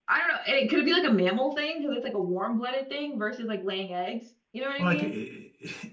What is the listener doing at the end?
taking over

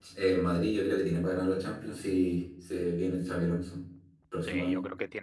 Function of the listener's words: taking over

